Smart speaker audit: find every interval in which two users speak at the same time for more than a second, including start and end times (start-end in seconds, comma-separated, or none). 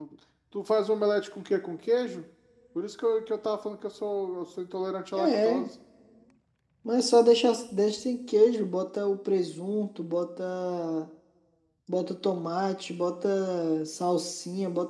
none